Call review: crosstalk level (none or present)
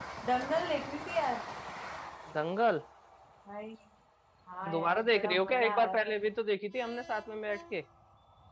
present